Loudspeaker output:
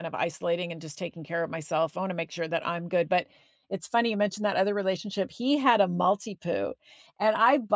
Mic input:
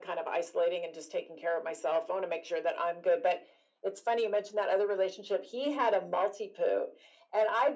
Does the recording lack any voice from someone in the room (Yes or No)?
Yes